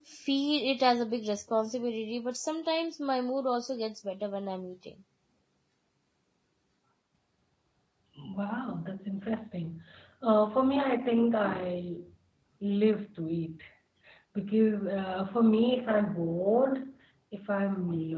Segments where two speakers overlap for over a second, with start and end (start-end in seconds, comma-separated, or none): none